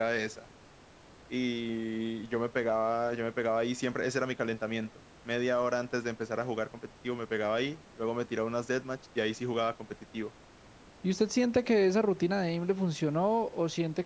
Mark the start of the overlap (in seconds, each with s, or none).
none